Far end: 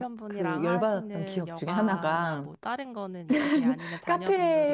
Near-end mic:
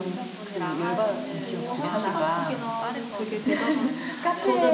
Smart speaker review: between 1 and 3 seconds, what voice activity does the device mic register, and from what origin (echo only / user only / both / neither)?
both